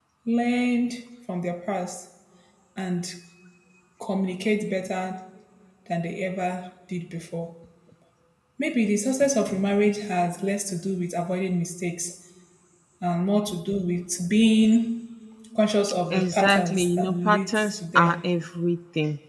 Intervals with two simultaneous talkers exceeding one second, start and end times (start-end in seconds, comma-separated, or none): 16.1-18.2